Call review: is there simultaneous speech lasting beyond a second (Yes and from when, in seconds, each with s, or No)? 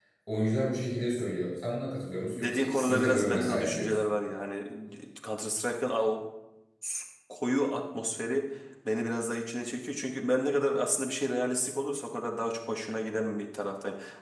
Yes, from 2.3 s